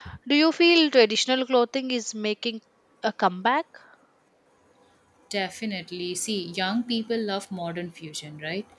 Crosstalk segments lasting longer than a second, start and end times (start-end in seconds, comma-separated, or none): none